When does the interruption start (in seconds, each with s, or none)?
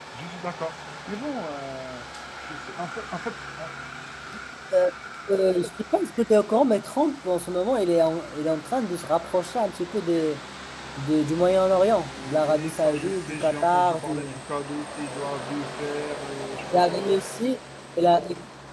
12.2 s